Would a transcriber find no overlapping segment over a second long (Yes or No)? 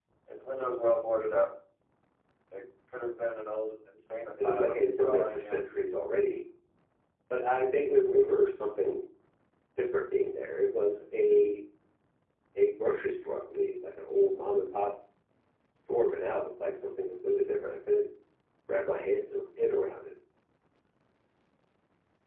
No